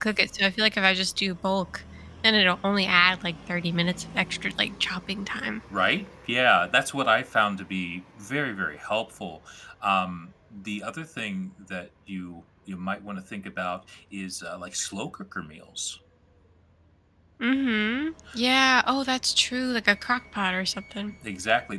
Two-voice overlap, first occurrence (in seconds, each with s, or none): none